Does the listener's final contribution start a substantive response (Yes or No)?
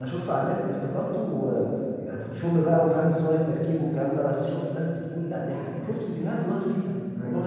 No